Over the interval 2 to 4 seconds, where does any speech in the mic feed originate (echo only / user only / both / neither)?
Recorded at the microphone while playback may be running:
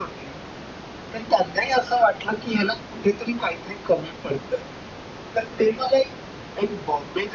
echo only